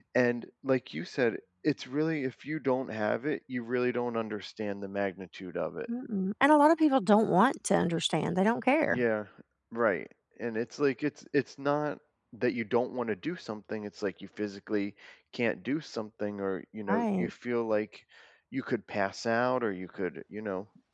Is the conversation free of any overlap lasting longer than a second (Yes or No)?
Yes